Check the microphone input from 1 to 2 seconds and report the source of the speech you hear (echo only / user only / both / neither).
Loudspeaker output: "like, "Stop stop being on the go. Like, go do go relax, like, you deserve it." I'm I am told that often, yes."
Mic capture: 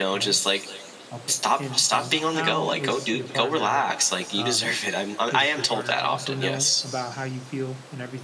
both